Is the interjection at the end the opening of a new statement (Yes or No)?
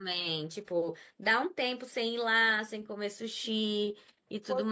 Yes